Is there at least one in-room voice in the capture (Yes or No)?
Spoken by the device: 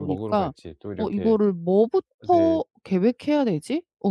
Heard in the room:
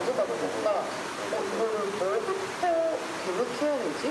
No